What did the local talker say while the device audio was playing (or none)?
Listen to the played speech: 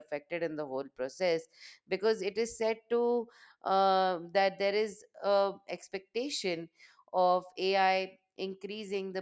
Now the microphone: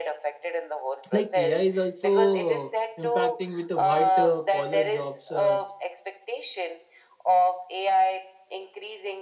like ai is also impacting with the white uh, collar jobs uh,